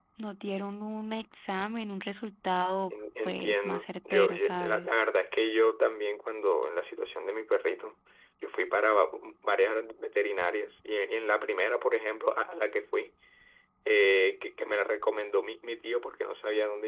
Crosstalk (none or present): present